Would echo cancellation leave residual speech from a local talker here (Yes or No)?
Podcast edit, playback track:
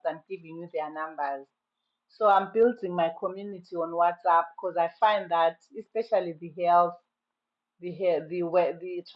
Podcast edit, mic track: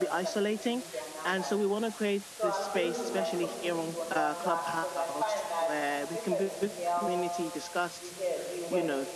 Yes